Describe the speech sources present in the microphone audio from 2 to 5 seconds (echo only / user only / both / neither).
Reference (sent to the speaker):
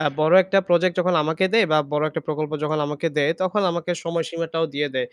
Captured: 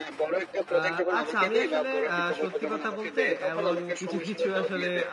both